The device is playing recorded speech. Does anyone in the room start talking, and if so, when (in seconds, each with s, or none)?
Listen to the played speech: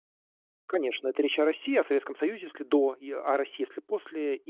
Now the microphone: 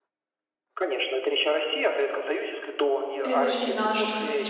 3.2 s